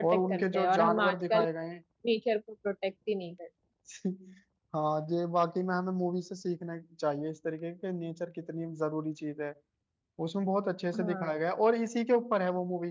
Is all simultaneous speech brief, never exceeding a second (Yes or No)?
No